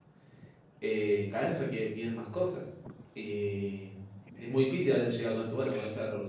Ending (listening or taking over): listening